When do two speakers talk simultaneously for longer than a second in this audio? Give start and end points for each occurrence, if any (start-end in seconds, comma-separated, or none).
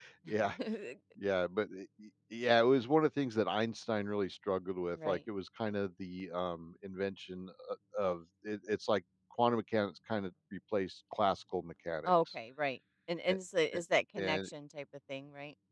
none